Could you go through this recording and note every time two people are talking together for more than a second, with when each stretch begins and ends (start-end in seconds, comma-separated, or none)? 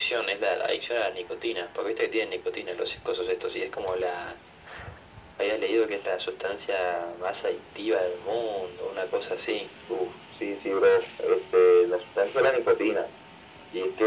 none